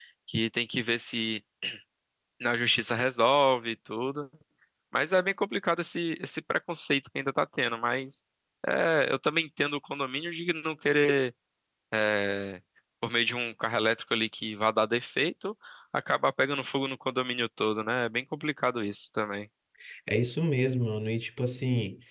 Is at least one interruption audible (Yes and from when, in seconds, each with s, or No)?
No